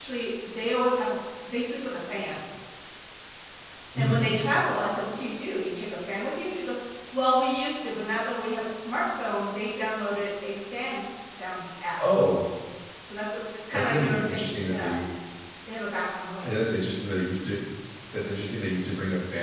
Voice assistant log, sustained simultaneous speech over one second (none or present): present